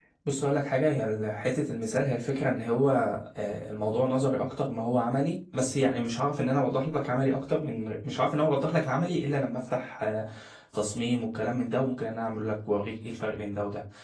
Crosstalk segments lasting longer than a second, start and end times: none

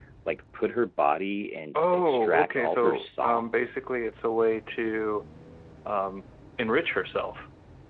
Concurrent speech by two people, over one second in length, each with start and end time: 1.8-3.8

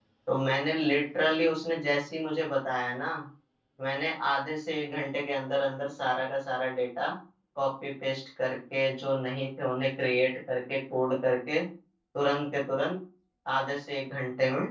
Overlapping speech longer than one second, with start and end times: none

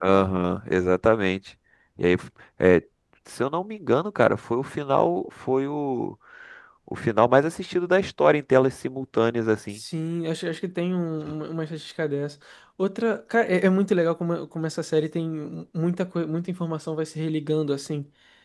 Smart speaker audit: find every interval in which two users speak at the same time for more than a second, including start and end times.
none

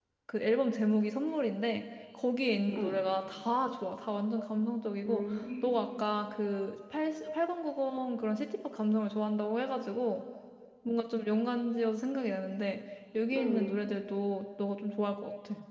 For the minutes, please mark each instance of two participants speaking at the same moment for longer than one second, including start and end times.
none

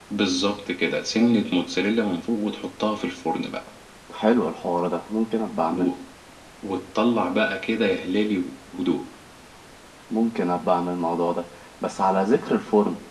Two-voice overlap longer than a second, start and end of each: none

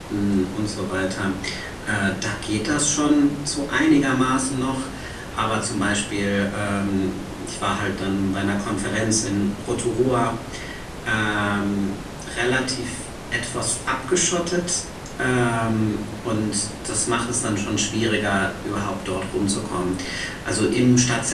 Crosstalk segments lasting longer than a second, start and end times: none

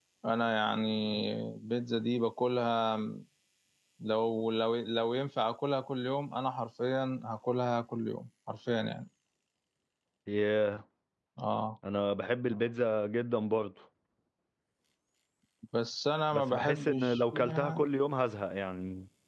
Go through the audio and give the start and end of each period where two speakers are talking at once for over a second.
16.3-17.9

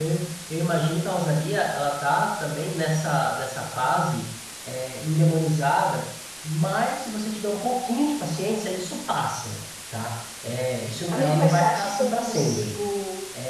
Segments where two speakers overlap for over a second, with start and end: 11.1-12.7

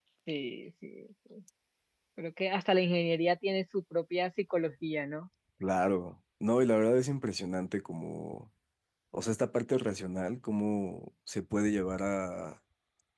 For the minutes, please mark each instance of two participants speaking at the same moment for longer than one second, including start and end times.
none

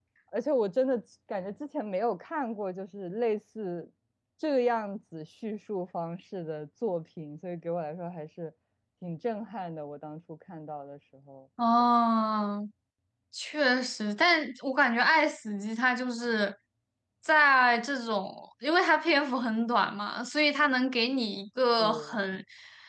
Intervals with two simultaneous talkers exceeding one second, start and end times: none

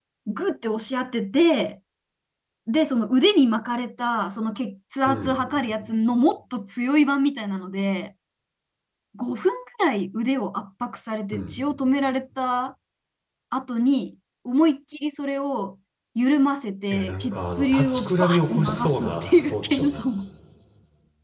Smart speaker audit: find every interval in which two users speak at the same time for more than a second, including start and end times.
16.9-20.0

